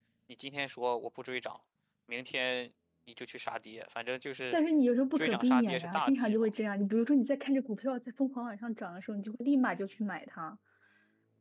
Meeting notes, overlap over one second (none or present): present